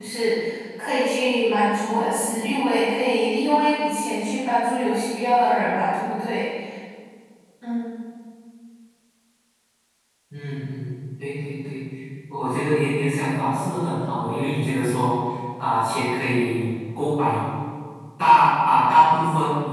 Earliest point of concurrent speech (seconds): none

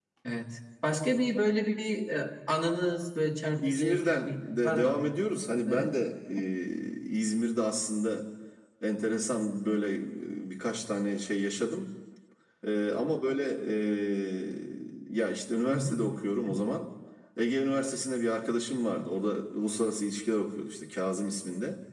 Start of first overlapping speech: 3.6 s

